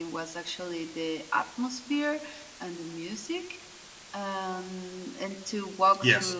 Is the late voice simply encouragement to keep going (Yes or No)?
Yes